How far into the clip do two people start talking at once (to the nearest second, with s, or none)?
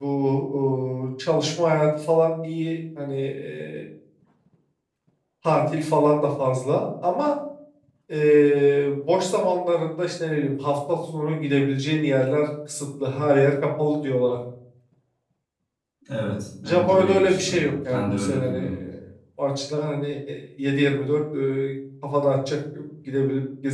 17 s